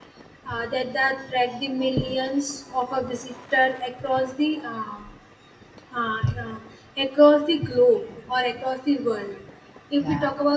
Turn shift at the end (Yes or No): No